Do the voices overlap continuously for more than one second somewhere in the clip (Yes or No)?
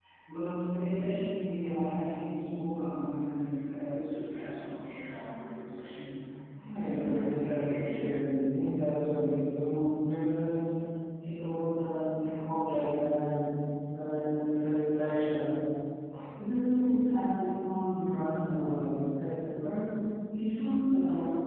Yes